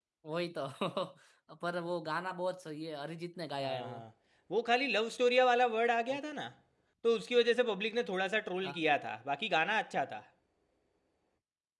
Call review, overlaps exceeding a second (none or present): none